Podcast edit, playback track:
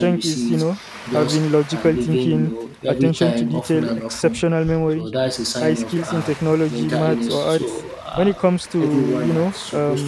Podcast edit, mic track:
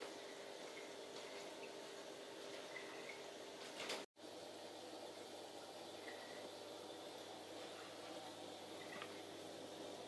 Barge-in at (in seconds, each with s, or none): none